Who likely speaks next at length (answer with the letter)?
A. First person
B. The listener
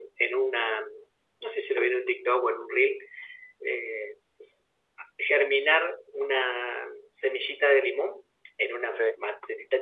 A